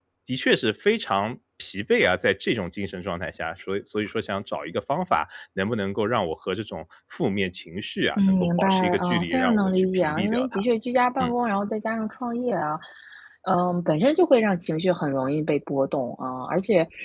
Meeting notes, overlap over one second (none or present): present